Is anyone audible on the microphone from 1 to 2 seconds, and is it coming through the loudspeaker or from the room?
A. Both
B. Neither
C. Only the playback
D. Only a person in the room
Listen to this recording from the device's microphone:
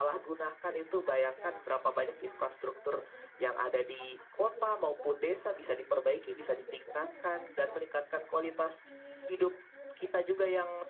A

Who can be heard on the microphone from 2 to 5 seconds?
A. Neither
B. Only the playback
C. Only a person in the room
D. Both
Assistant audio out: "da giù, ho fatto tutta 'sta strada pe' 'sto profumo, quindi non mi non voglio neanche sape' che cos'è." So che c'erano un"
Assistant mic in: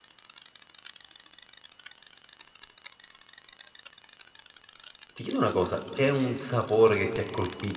A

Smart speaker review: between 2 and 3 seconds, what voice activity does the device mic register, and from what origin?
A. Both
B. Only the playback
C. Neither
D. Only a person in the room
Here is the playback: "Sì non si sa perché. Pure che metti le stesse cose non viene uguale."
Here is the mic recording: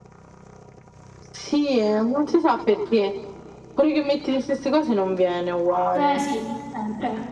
B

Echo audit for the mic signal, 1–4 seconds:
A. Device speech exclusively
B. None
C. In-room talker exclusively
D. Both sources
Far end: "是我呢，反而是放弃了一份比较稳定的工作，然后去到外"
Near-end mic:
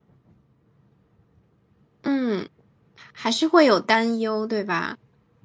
C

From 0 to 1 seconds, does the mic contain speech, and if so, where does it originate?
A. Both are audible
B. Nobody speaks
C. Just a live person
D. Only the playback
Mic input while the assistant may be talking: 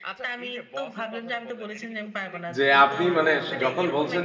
D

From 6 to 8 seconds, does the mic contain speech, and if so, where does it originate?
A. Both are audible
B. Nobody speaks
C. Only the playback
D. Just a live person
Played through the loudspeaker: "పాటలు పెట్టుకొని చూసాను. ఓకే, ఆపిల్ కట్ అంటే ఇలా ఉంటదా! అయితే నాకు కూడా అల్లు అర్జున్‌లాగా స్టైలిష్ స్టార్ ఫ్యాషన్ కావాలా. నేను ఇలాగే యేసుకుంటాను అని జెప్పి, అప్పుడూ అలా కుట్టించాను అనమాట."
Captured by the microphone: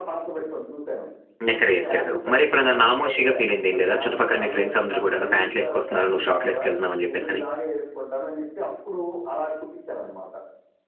A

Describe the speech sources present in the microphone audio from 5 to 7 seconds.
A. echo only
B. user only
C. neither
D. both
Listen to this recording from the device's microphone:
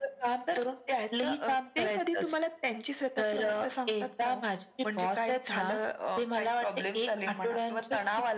A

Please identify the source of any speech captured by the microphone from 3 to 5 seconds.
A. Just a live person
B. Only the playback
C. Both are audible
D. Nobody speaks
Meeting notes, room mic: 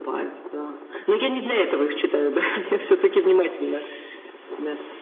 B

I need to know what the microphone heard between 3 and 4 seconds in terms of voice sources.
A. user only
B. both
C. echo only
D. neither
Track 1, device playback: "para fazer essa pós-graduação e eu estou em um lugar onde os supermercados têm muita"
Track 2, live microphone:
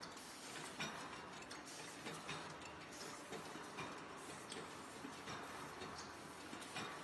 D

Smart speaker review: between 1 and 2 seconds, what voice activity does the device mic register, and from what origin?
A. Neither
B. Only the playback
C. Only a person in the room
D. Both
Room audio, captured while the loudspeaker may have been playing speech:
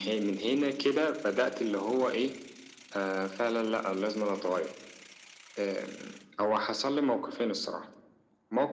B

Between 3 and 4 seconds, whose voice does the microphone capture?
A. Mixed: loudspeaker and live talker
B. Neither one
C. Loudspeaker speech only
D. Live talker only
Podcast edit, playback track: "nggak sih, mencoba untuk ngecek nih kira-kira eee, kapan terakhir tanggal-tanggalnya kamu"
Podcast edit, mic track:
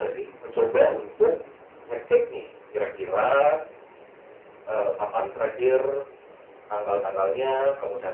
C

